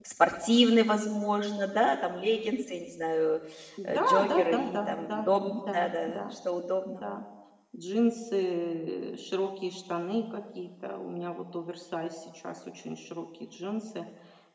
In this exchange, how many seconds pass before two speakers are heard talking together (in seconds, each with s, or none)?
3.9 s